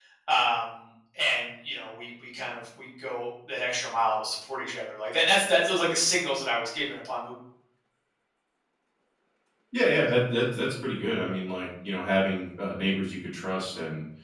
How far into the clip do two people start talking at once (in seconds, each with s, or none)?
none